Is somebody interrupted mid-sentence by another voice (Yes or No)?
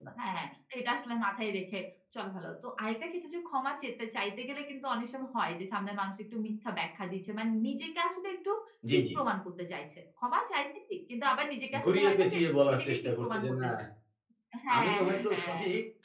Yes